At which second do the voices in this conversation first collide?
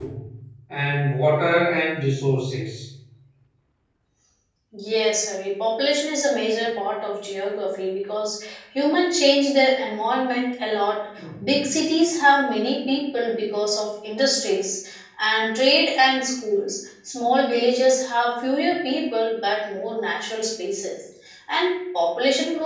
none

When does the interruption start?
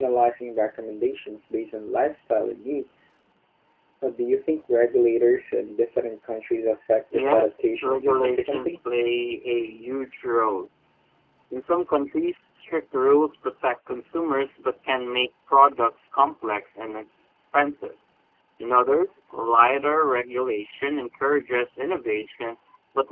7.1 s

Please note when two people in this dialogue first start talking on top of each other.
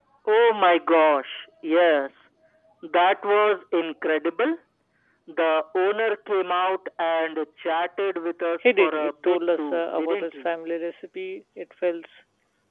8.6 s

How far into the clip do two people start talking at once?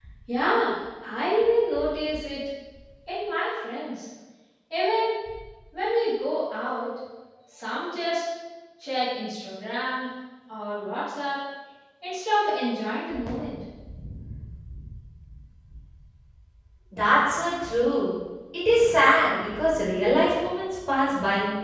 none

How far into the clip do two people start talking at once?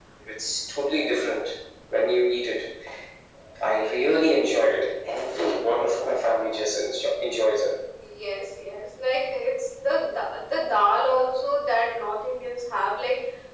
none

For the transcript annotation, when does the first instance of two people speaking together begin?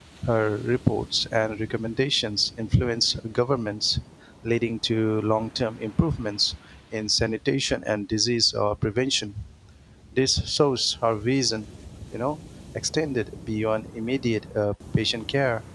none

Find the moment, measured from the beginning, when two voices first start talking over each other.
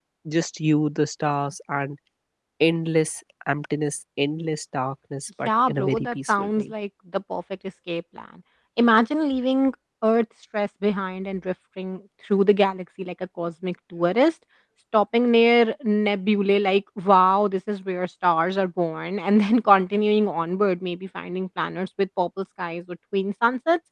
5.4 s

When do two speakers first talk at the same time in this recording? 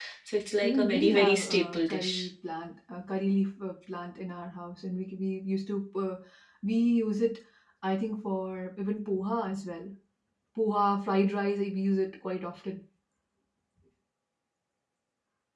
0.6 s

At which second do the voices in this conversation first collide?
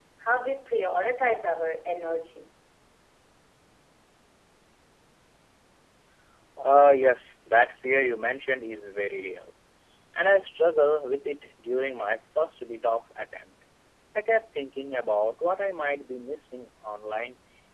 none

